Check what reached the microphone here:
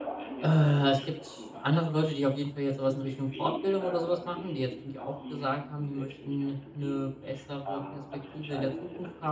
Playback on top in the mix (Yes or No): No